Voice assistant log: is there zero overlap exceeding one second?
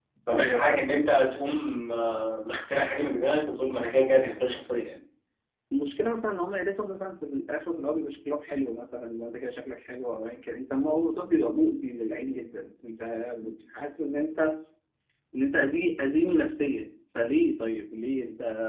Yes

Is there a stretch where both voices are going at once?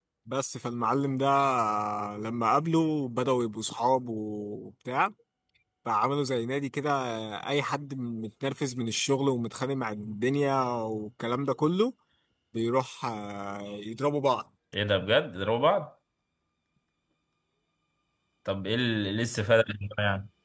No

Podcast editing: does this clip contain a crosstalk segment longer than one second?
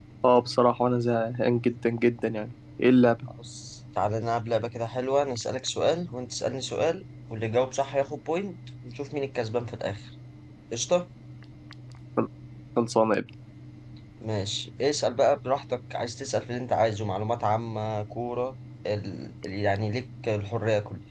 No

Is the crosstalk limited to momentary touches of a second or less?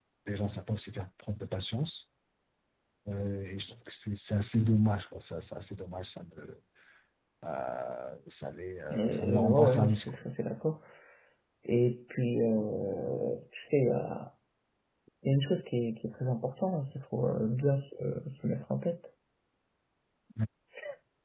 No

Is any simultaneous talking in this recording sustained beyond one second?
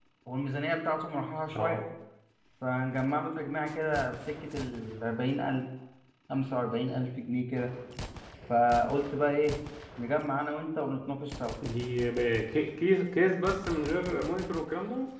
No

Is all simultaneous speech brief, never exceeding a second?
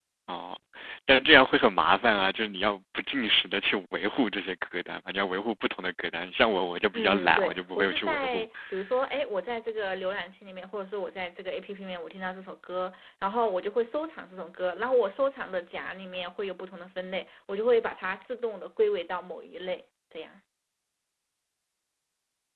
No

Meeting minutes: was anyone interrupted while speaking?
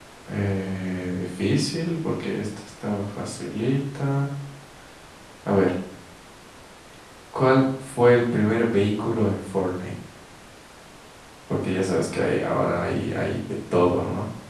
No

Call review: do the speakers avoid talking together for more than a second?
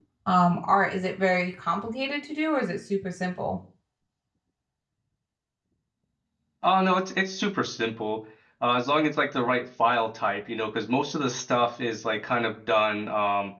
Yes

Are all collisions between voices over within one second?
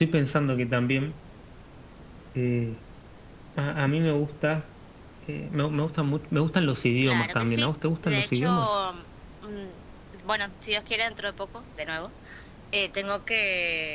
No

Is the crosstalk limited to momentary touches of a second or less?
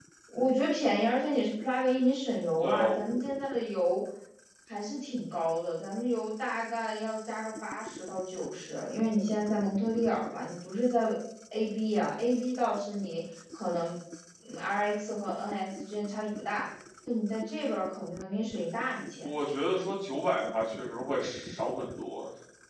Yes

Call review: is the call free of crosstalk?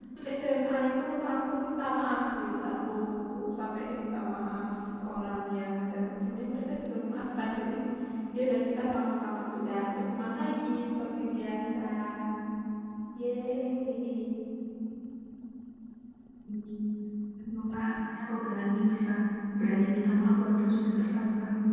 Yes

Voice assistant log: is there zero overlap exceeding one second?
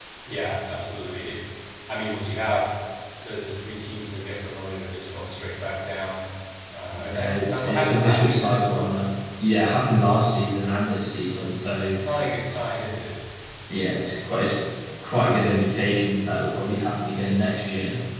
No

